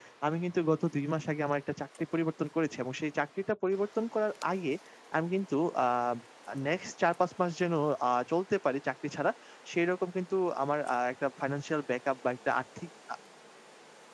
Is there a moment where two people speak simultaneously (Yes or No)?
No